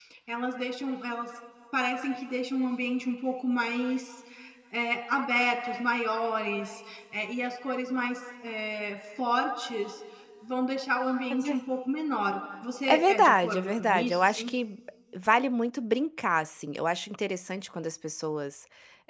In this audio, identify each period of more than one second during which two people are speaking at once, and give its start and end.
12.9-14.5

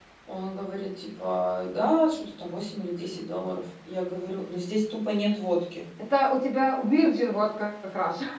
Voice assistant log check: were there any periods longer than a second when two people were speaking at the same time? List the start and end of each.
none

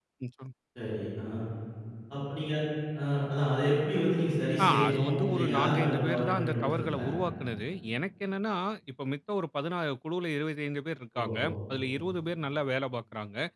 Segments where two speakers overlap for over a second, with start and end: 4.6-7.0

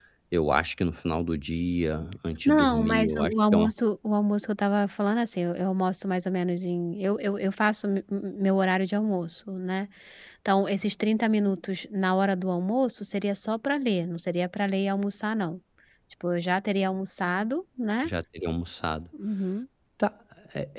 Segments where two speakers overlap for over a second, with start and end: 2.5-3.7

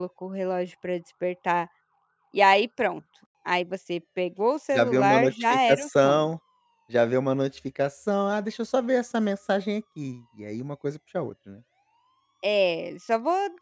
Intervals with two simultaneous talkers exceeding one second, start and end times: 4.7-6.3

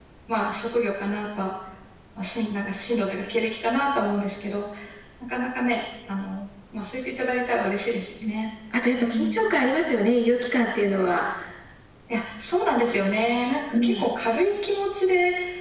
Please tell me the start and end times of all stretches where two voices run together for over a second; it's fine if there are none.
none

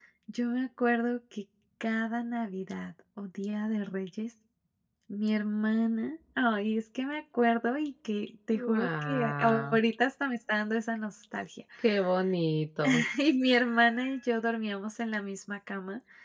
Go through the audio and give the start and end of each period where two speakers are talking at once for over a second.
8.5-9.8

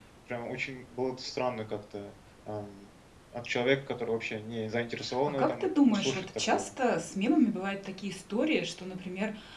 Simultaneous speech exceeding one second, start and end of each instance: 5.3-6.7

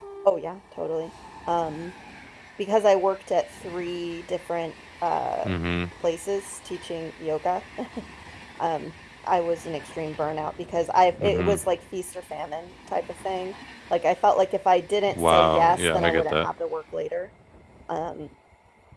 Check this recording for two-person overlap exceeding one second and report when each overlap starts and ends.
15.1-16.5

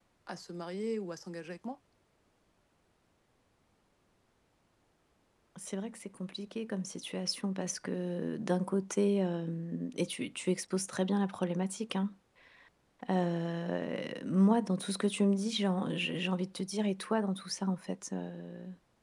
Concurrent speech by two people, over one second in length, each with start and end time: none

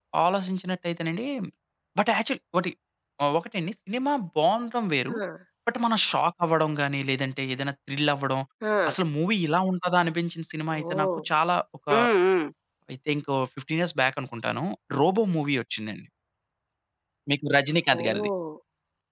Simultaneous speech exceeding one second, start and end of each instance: none

